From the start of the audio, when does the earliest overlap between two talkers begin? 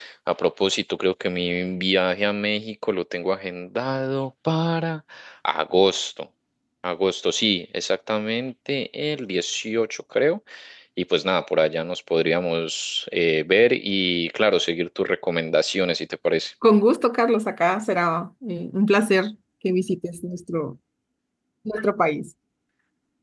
none

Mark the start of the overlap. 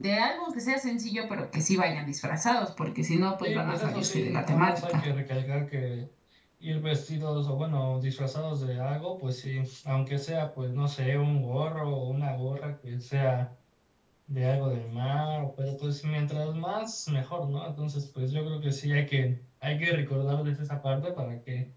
3.4 s

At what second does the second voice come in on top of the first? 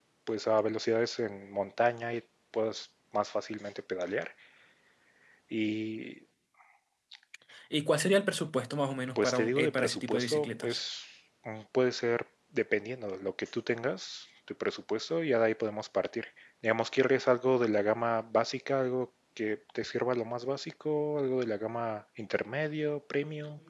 9.2 s

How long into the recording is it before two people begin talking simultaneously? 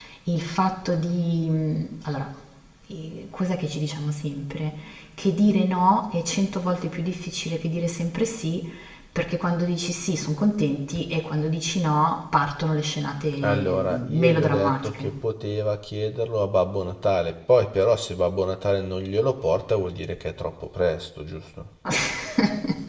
13.3 s

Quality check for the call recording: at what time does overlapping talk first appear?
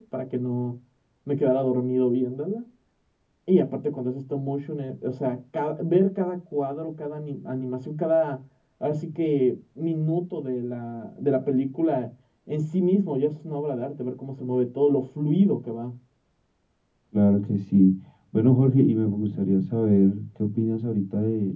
none

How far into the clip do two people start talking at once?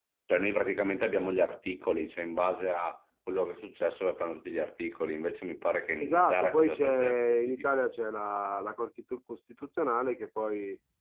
6.0 s

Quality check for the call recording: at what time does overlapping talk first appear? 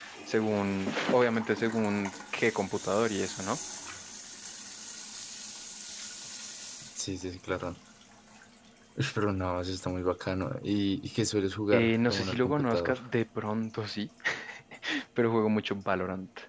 11.7 s

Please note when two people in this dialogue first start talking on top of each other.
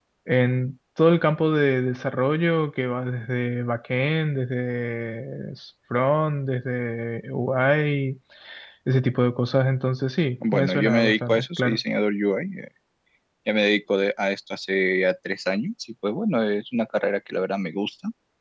10.4 s

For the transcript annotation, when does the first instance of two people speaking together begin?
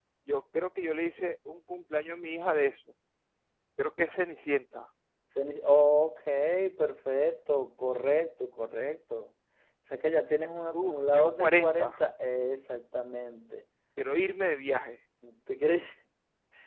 10.7 s

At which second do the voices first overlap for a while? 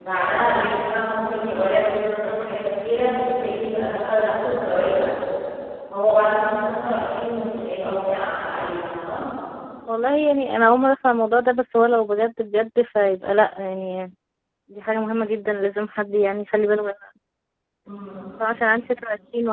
none

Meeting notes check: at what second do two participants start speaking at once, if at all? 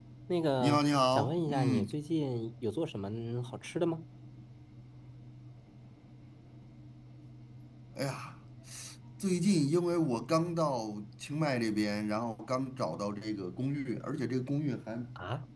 0.6 s

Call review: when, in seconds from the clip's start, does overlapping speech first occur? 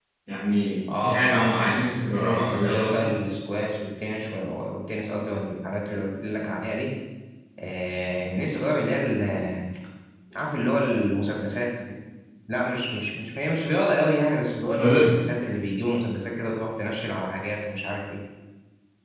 1.0 s

